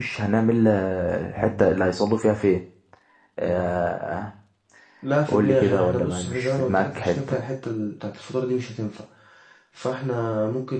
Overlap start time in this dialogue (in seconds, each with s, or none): 5.3 s